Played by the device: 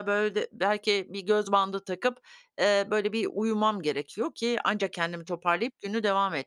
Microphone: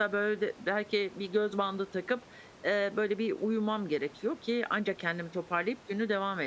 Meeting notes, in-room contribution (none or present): none